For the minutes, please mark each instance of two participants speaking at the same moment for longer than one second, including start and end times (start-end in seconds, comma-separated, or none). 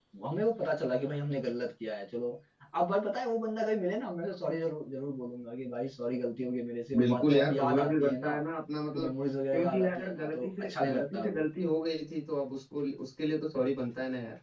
7.0-8.3, 9.5-11.4